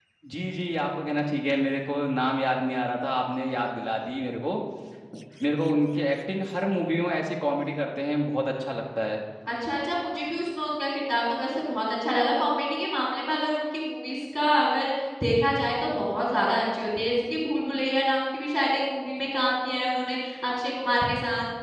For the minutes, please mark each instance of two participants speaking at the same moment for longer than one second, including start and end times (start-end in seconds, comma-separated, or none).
none